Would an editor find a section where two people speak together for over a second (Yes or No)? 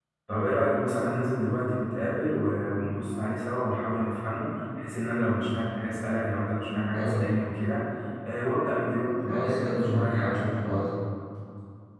Yes